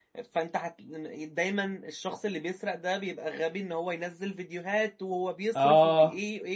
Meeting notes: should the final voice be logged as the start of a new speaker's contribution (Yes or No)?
No